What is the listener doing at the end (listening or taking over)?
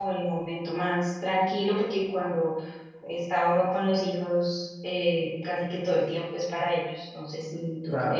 listening